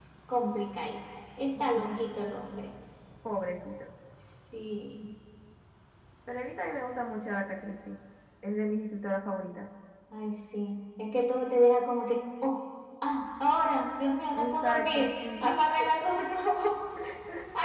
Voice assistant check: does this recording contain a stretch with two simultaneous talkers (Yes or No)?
Yes